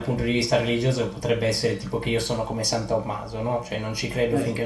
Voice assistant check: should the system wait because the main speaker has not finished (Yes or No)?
Yes